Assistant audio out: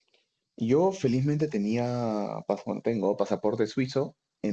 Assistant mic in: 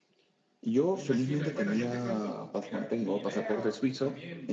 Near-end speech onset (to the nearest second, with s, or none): 1 s